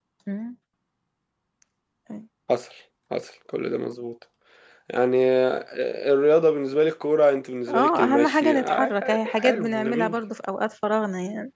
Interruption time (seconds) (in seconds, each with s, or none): 7.7 s